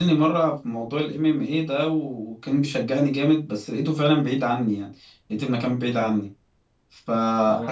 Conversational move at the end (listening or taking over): listening